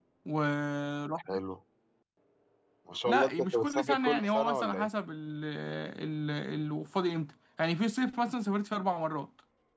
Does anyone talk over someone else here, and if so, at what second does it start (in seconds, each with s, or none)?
3.0 s